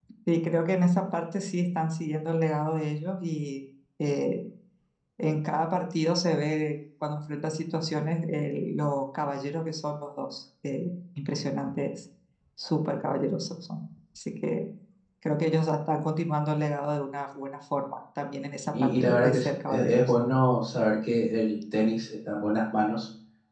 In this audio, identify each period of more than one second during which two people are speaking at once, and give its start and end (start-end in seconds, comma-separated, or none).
18.8-20.1